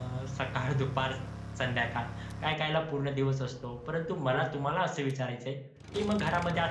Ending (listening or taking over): listening